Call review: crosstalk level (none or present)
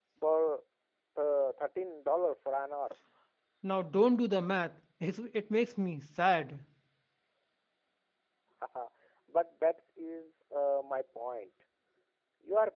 none